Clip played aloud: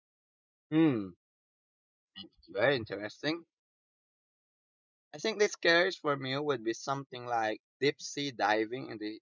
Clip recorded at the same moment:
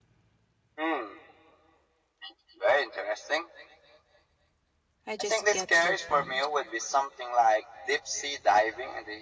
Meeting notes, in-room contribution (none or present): present